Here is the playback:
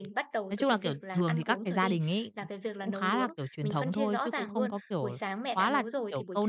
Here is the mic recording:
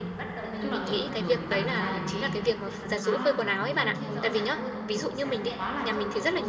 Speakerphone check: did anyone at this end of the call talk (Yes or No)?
Yes